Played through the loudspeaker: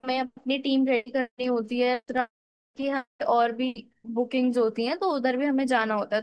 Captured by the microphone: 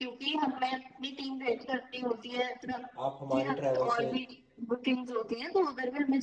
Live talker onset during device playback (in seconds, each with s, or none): 3.0 s